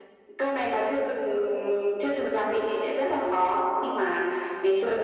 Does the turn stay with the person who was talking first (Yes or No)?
Yes